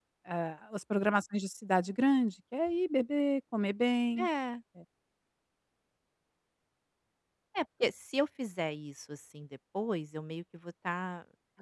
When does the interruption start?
none

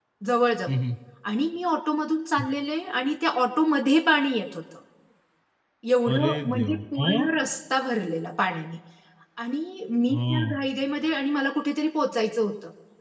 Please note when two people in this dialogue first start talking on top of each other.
6.1 s

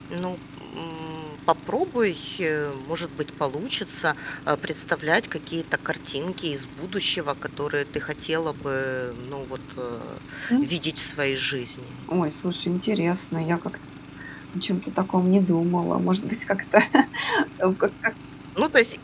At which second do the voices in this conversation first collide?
none

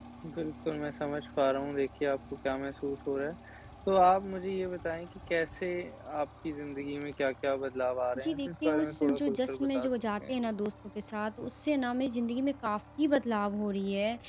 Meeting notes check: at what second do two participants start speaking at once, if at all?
8.2 s

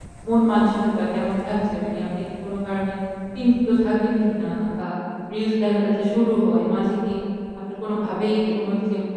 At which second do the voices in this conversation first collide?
none

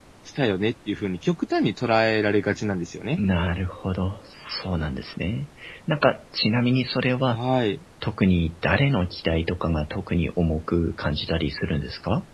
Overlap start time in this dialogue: none

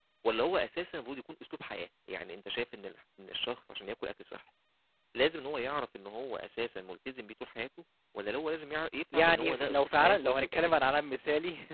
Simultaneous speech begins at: 9.1 s

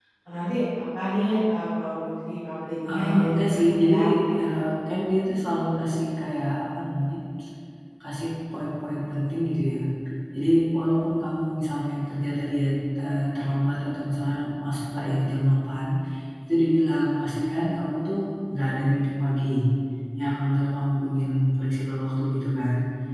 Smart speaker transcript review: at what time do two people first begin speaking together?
2.9 s

